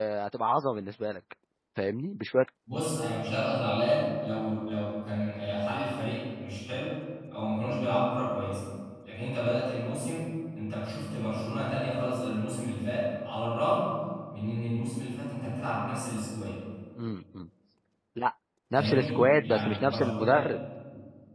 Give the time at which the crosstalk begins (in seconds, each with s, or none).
18.7 s